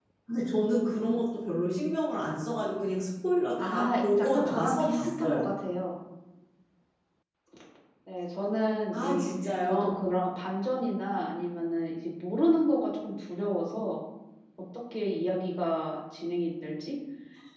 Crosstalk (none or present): present